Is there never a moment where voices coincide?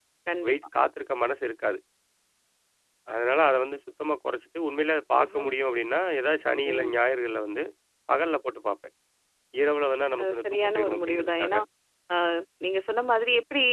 No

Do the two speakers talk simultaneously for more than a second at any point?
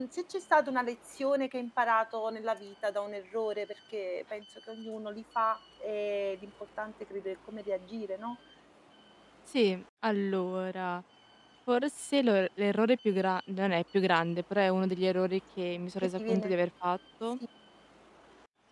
No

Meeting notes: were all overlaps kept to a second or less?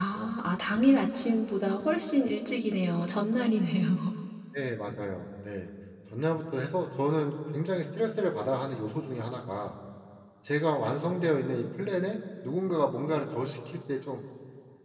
Yes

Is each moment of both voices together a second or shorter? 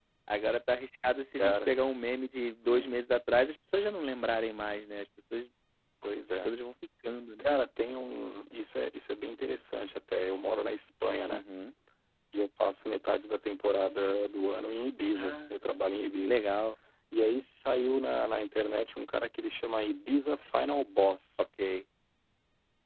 Yes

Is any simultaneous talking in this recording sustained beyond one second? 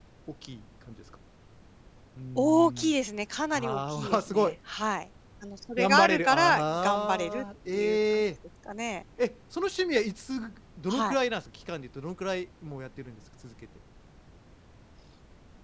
Yes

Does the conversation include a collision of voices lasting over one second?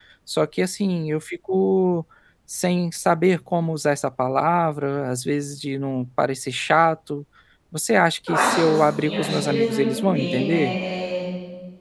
Yes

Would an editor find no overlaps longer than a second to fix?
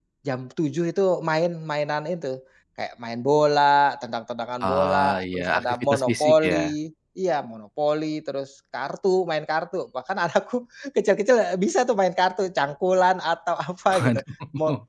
No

